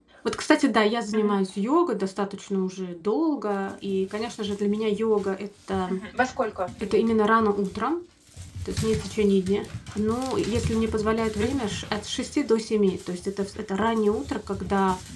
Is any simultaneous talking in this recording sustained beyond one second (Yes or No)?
No